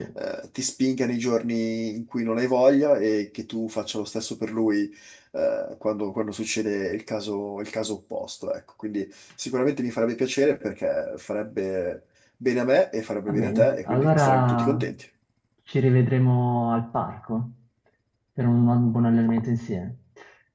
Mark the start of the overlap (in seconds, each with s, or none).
13.3 s